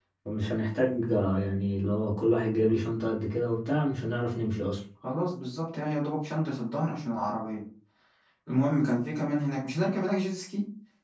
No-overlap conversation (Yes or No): Yes